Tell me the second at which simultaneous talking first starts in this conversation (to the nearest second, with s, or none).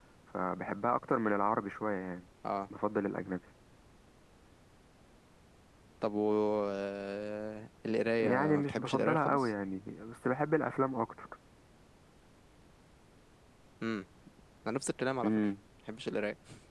8 s